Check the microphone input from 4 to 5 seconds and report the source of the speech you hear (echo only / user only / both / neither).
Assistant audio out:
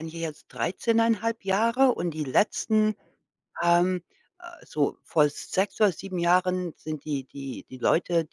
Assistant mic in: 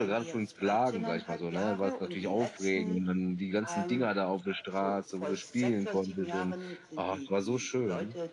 both